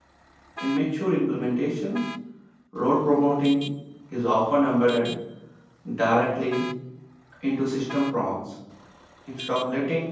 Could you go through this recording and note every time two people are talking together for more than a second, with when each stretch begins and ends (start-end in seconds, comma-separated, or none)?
none